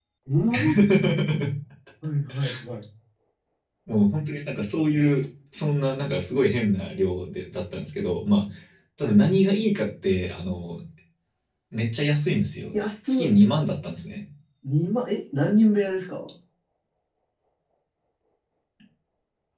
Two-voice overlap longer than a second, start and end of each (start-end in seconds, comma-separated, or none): none